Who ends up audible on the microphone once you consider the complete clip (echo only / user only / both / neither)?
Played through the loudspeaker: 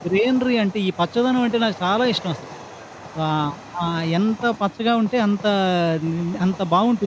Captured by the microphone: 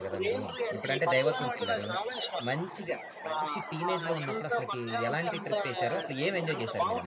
both